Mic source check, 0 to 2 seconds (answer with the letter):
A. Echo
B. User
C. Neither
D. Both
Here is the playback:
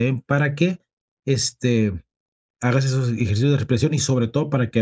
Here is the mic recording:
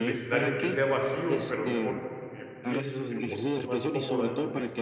D